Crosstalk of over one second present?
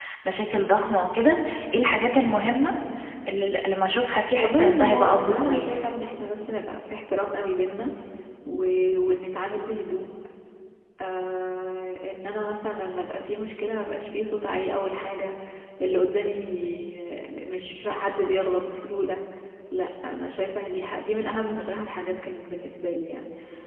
Yes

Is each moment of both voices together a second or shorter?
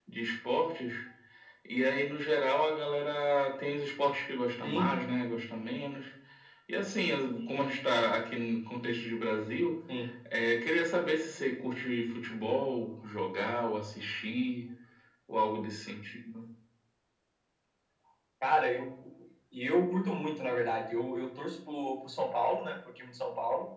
Yes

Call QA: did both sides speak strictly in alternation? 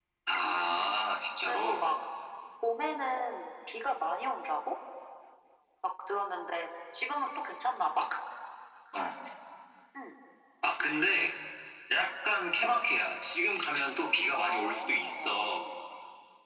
No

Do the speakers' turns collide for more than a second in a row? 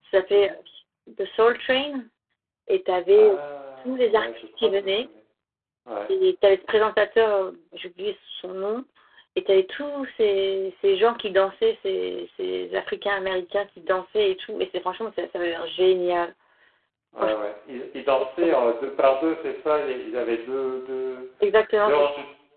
Yes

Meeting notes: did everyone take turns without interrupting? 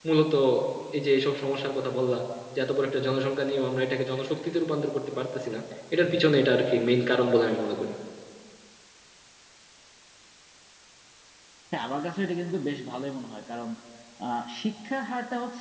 Yes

